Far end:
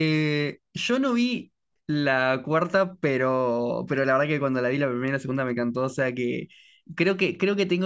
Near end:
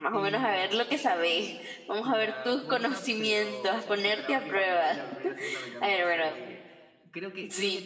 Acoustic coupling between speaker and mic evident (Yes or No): Yes